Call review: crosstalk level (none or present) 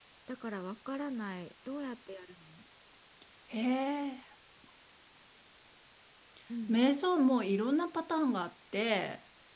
none